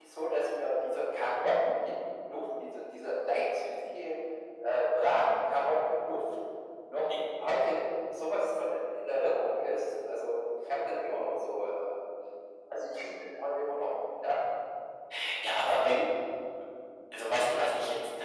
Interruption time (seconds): none

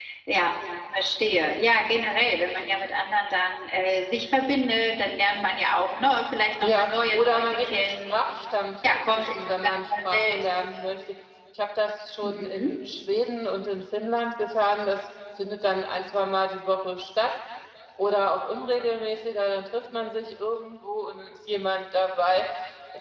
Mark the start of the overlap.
7 s

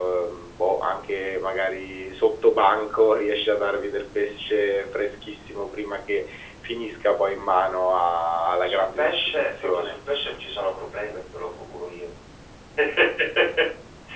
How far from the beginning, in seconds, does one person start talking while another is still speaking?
9 s

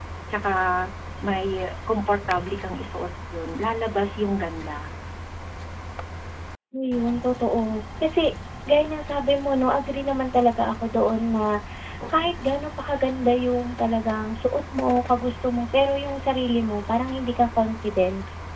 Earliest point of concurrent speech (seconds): none

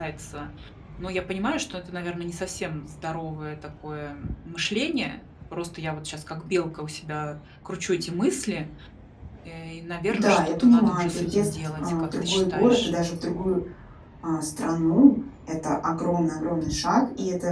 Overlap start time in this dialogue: 10 s

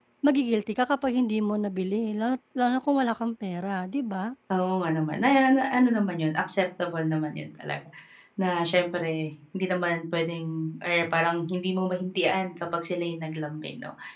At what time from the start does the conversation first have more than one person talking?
none

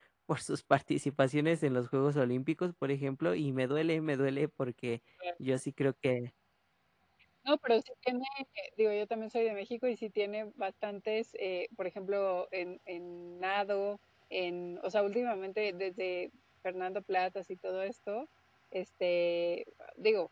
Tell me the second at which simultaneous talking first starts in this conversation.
none

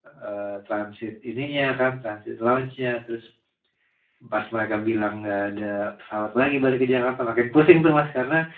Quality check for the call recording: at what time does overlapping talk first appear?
none

